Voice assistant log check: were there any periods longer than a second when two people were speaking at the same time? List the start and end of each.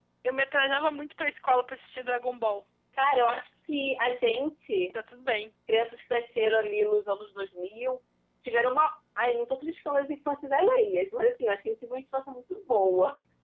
none

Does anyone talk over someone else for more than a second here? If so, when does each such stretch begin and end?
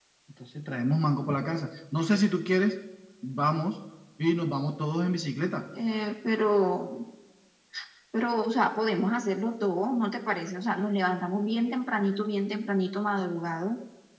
none

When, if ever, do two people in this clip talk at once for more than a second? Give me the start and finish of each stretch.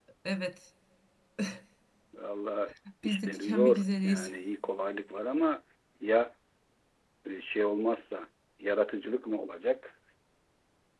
3.0-4.3

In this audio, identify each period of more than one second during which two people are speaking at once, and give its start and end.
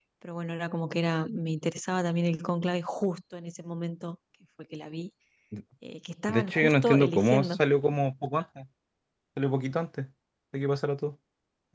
6.3-7.6

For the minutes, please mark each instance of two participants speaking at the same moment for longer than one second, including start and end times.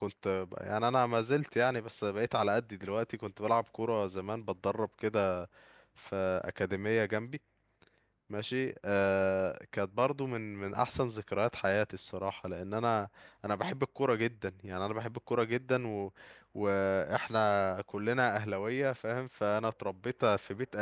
none

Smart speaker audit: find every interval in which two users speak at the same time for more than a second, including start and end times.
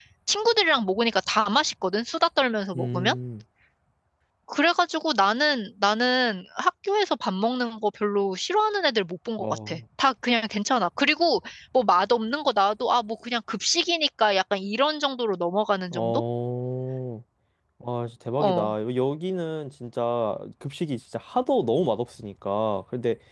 none

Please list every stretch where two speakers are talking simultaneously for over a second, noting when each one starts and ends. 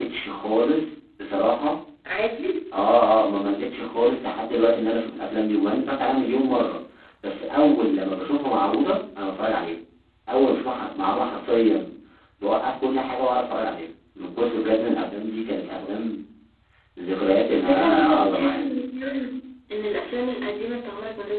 17.5-18.8

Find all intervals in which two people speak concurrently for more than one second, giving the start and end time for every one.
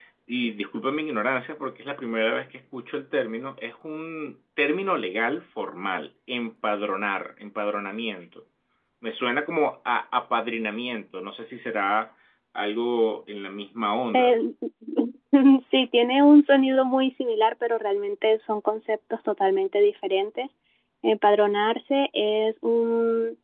none

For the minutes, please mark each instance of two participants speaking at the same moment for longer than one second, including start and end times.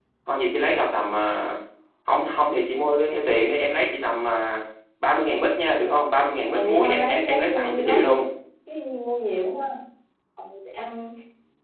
6.5-8.2

